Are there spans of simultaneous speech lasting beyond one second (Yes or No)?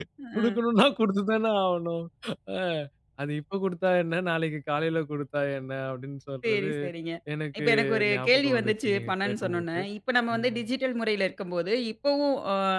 Yes